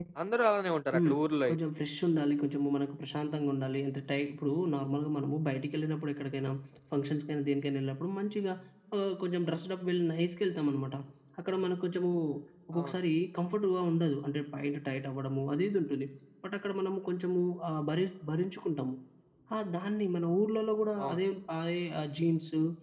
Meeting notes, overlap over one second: none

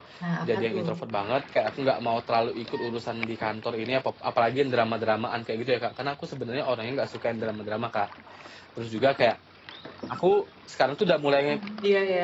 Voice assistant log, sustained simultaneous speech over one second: none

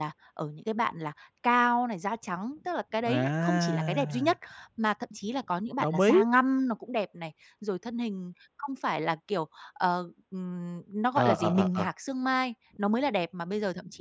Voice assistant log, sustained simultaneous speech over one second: present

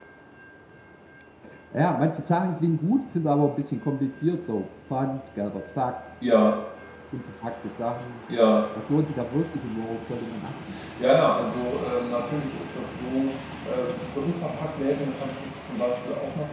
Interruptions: none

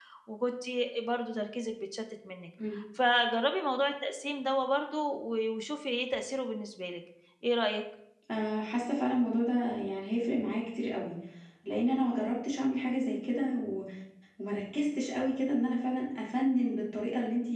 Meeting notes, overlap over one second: none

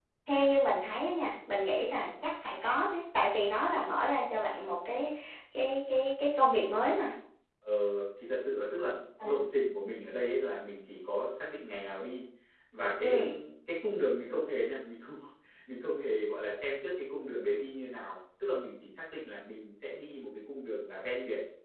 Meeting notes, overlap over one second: none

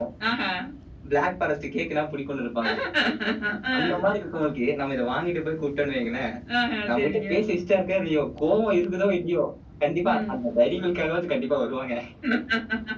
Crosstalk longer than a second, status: none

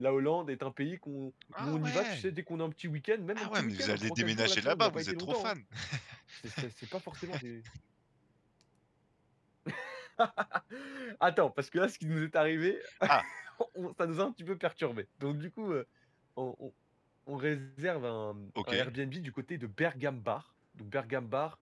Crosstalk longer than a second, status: present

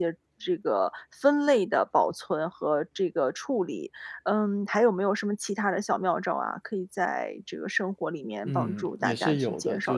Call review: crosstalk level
present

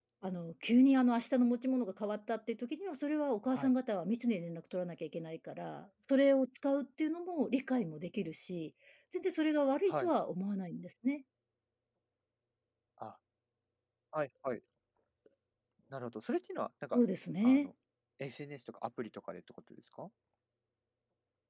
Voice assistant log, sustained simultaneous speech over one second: none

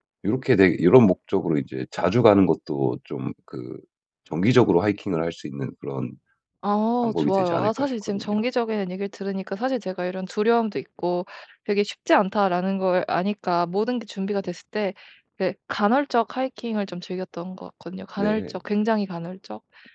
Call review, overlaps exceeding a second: present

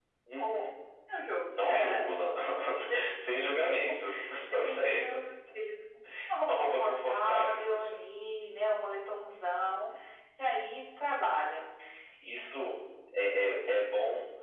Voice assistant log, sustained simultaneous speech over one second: present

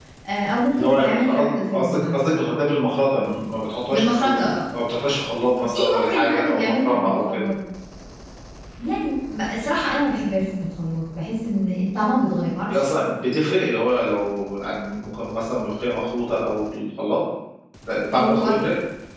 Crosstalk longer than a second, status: present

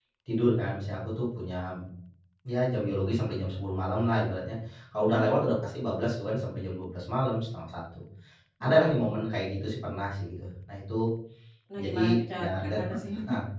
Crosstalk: present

